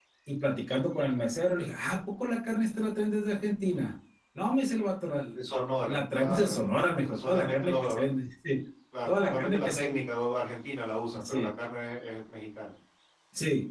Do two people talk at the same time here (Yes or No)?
Yes